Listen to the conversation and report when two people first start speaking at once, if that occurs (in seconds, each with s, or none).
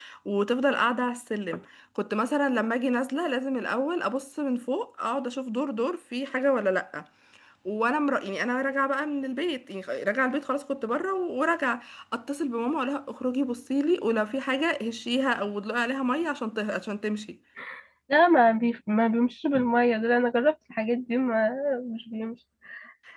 none